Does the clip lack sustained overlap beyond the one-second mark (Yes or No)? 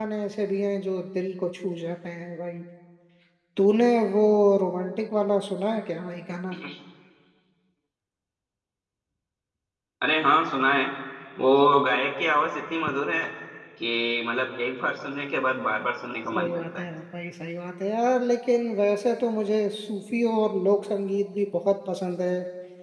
Yes